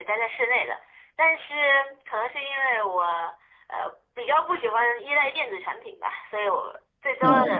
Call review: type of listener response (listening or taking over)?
listening